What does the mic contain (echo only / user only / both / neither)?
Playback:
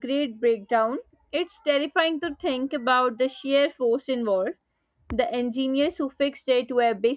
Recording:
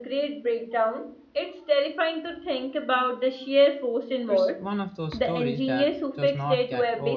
both